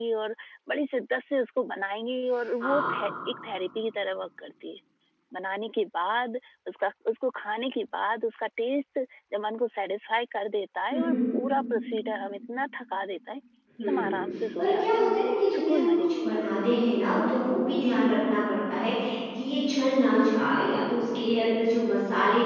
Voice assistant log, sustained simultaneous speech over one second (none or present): present